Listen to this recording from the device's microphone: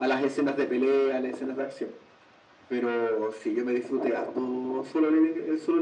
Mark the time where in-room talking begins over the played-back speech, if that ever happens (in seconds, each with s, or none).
none